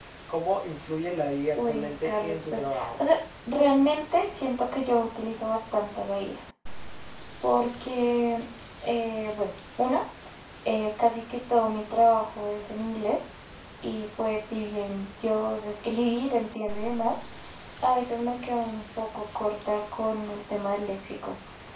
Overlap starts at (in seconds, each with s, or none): 1.6 s